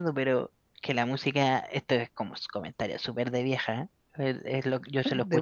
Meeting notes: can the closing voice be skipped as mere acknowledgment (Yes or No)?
Yes